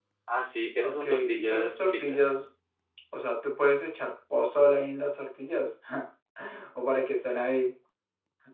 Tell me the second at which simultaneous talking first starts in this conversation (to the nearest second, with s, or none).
1 s